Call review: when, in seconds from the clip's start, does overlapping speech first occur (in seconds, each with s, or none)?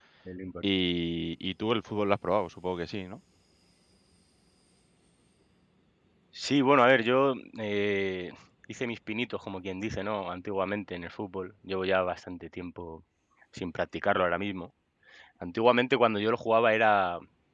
none